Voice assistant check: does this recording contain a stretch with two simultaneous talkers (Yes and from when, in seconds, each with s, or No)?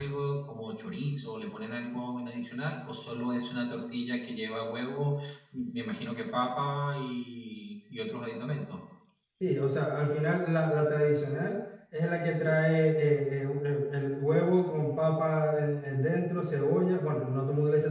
No